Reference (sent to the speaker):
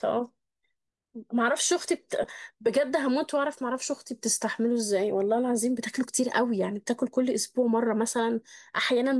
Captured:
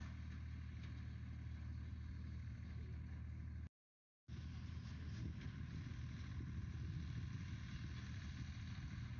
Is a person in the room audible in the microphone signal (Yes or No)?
No